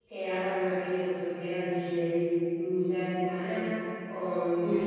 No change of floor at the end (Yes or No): No